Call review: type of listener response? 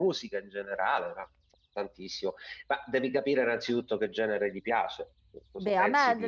taking over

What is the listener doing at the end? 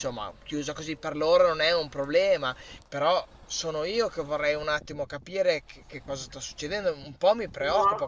listening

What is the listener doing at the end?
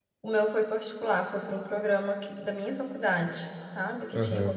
taking over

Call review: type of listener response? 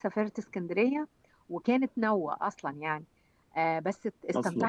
listening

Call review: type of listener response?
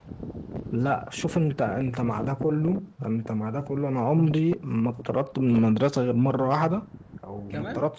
listening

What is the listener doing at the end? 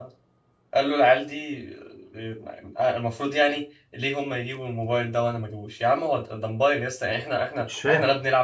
listening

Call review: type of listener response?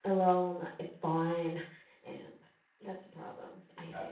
taking over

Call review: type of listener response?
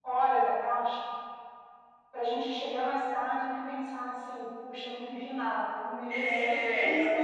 taking over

